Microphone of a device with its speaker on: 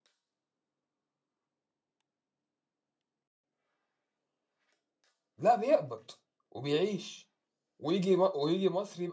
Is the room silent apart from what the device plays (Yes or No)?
No